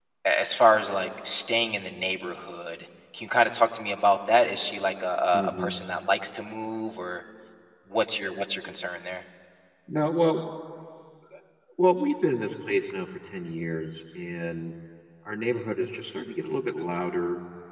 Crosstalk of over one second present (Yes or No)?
No